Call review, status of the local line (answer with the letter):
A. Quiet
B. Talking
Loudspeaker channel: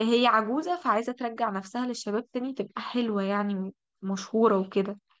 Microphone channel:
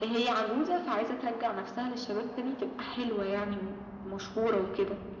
A